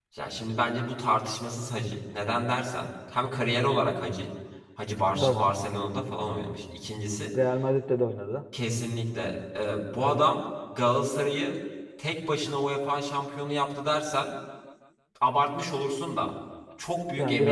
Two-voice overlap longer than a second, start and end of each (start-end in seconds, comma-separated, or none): none